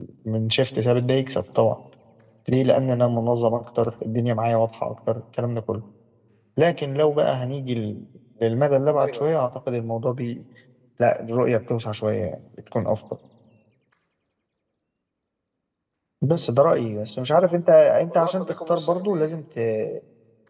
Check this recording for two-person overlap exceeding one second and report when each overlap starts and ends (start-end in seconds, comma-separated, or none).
18.1-19.4